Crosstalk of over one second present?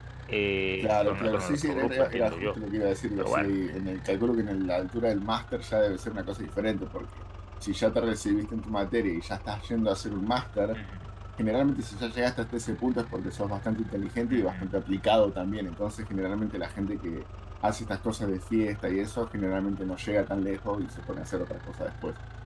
Yes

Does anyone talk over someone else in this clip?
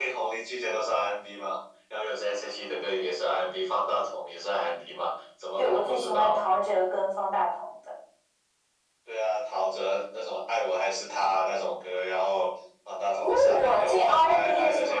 Yes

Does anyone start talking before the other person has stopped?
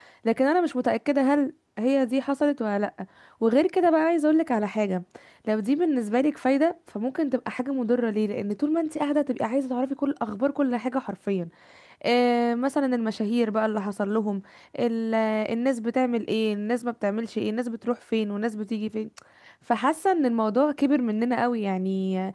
No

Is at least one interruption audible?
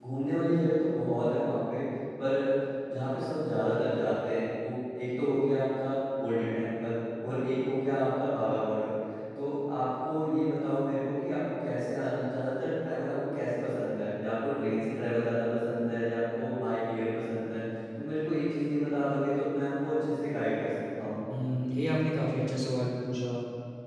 No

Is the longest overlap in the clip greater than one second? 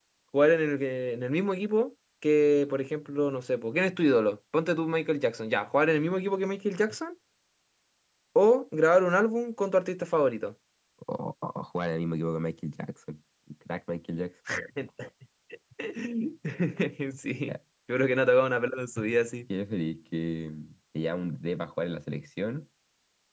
No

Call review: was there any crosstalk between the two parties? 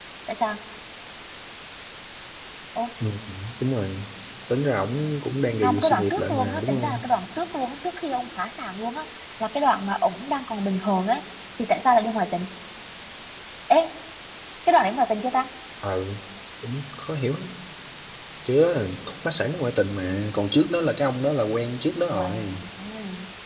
Yes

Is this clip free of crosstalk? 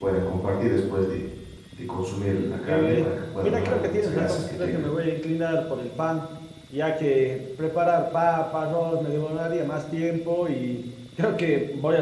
No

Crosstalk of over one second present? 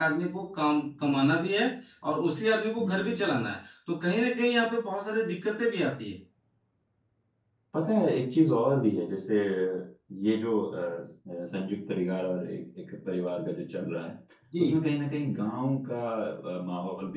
No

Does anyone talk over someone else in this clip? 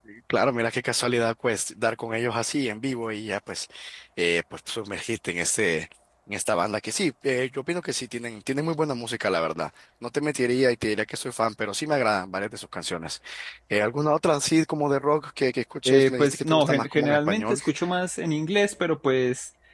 Yes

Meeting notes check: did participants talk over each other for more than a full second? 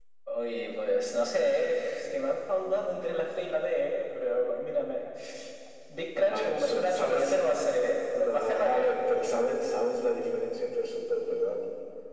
Yes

